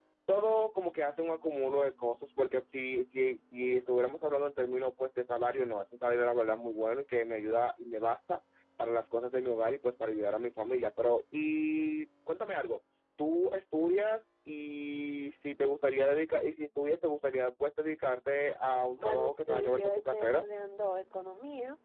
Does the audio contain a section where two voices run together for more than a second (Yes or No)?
Yes